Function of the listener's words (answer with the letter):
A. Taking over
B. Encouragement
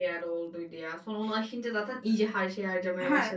A